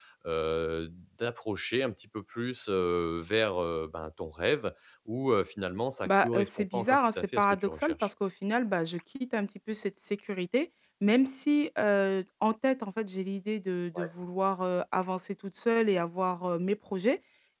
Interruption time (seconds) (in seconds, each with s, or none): 6.0 s